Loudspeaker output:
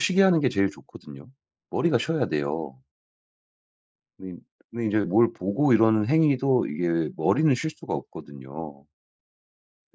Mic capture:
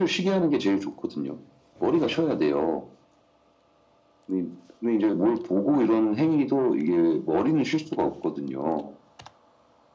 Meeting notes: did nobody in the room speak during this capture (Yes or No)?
Yes